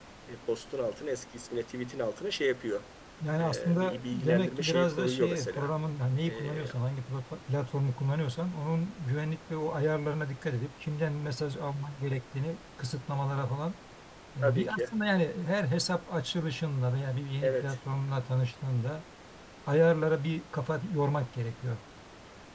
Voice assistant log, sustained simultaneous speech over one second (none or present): present